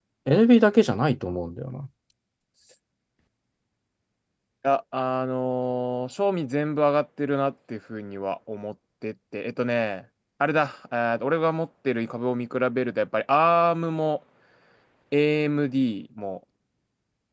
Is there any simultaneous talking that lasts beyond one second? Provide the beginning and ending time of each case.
none

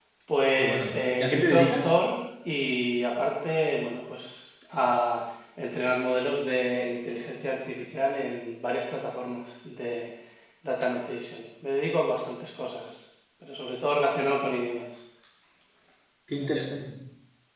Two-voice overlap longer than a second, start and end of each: 0.6-1.9

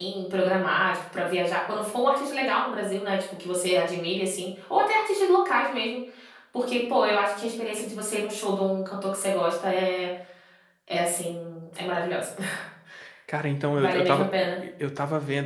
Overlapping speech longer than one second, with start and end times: none

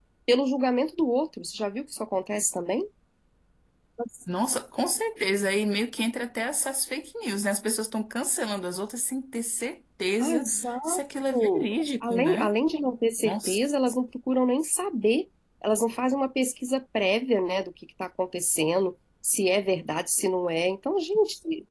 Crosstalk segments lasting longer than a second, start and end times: none

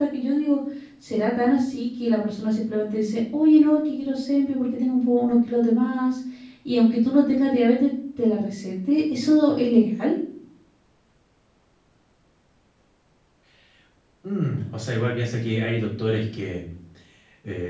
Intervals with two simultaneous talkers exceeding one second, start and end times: none

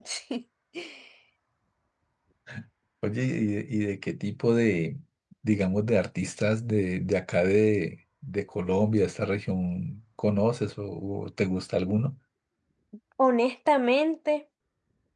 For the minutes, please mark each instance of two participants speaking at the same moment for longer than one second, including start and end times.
none

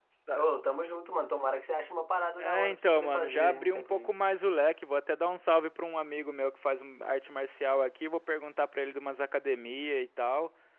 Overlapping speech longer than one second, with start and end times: 2.4-4.2

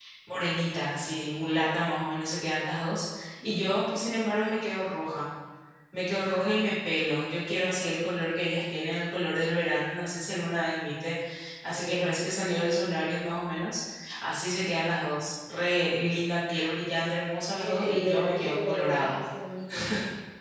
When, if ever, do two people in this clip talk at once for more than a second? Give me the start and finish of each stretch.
17.6-19.2

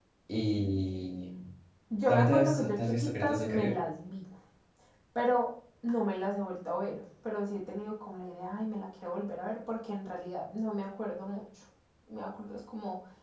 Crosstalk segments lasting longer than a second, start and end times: 2.1-3.7

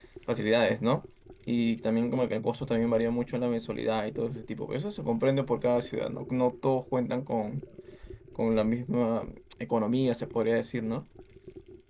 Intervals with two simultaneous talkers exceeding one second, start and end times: none

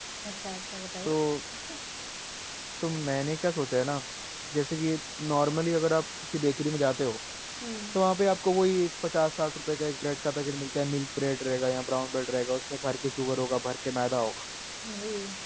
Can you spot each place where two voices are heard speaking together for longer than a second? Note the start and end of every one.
none

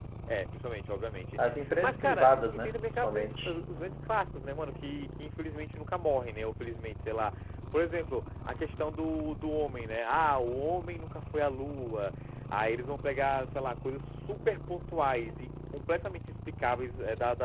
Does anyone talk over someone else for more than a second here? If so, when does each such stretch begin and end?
1.8-3.5

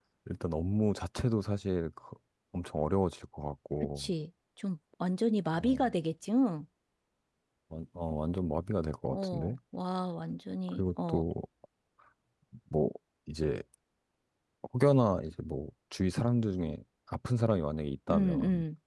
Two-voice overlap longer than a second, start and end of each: none

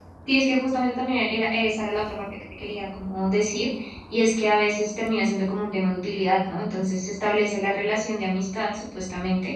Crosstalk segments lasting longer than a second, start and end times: none

